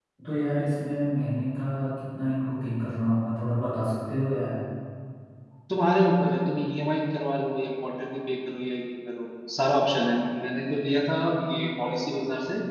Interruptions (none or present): none